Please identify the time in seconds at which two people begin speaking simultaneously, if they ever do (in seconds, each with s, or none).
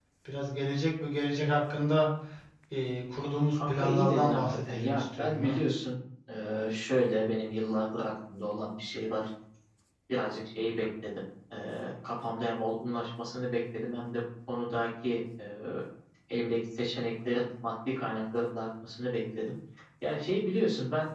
3.5 s